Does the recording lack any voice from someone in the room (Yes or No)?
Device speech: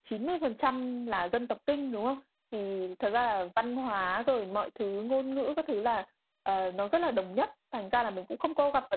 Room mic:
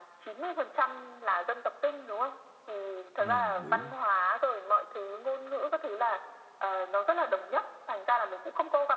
No